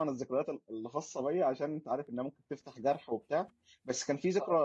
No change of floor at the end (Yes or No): Yes